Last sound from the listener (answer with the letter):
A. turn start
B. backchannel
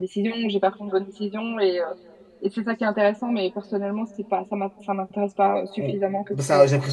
A